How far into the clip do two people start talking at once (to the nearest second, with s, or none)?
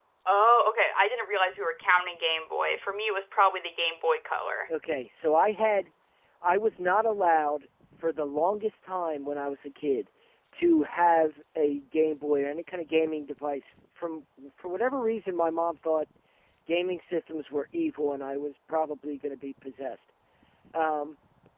none